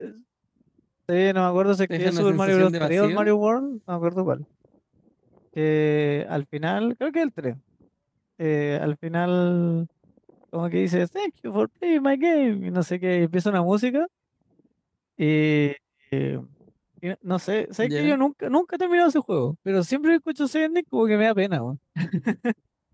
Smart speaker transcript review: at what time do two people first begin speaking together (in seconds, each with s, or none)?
2.0 s